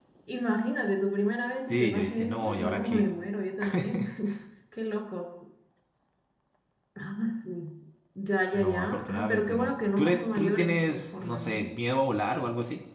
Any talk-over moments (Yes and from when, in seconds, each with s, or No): Yes, from 1.7 s